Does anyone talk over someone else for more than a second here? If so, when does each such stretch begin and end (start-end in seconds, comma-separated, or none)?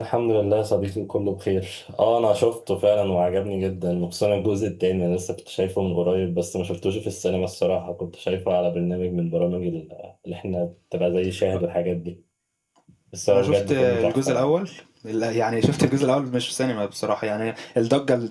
13.3-14.5